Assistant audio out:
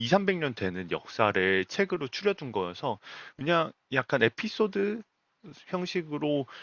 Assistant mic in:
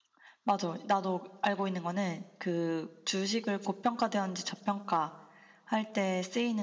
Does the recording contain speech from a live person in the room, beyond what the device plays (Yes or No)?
Yes